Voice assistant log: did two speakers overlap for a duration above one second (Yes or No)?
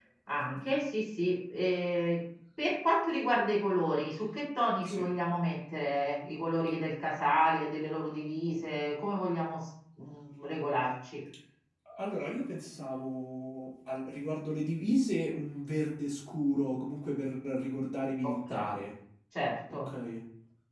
No